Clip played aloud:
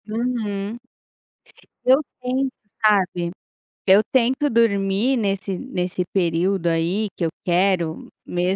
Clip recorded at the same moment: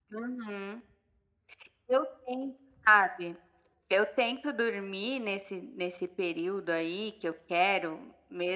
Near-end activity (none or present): none